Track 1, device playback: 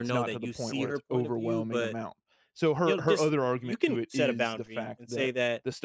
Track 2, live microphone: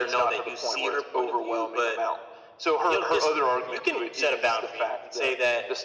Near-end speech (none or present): none